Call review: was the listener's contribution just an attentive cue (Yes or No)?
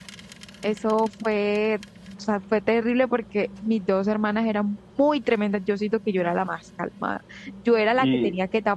Yes